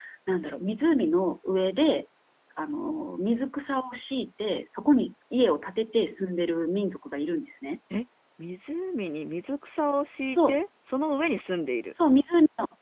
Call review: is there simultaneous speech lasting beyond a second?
No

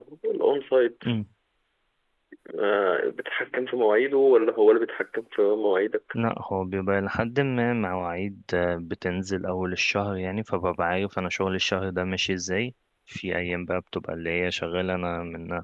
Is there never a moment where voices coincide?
Yes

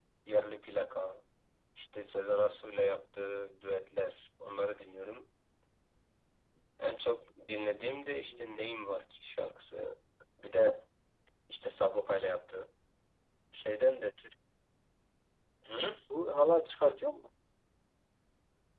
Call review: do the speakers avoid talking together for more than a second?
Yes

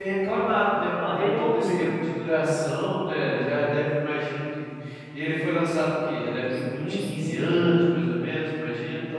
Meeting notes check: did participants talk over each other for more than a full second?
Yes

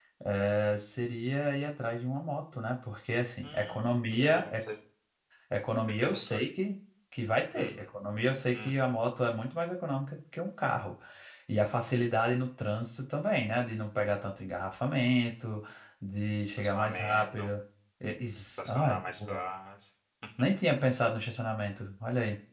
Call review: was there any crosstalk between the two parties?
Yes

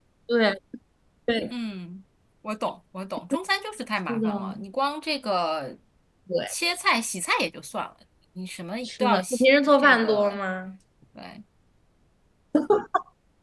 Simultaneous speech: Yes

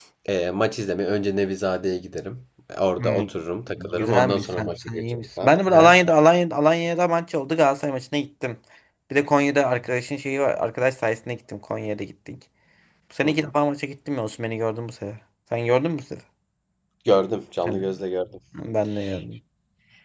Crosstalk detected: Yes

